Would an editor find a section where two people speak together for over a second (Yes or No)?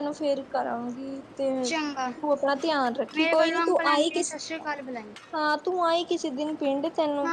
Yes